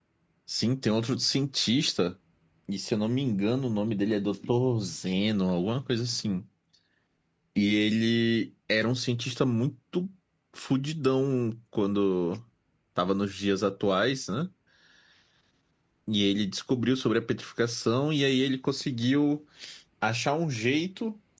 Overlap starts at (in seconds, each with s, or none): none